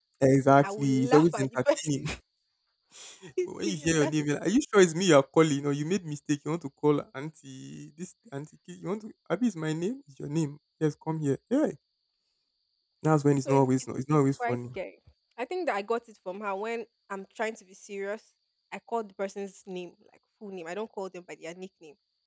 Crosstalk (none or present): present